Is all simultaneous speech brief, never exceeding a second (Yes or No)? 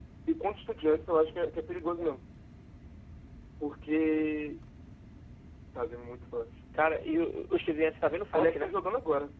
Yes